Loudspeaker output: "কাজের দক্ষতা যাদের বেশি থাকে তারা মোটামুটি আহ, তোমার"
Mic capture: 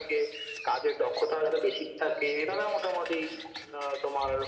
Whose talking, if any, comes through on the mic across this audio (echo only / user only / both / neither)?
echo only